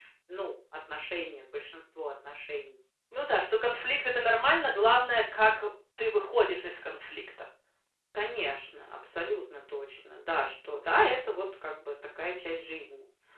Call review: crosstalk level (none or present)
none